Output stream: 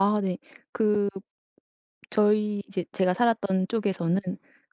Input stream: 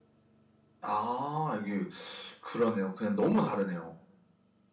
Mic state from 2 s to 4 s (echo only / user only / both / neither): user only